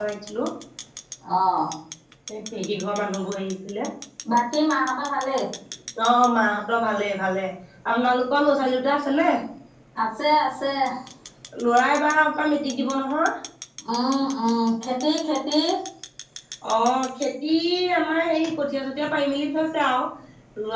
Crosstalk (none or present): none